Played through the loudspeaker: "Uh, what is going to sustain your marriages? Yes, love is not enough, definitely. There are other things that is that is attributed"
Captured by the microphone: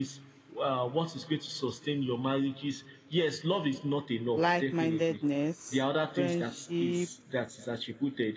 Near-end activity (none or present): present